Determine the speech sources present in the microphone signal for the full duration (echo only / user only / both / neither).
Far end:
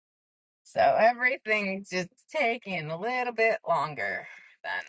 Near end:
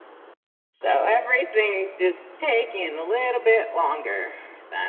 echo only